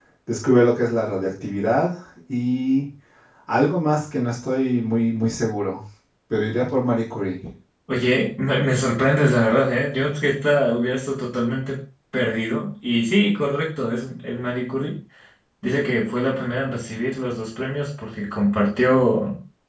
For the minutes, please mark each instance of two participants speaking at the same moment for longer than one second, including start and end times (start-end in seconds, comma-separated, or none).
none